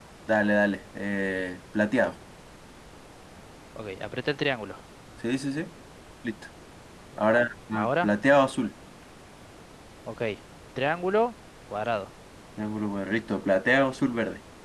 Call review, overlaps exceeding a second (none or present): none